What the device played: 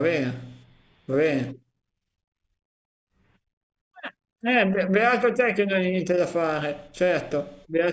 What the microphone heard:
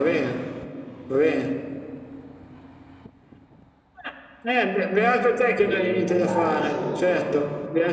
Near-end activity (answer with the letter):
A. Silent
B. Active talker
B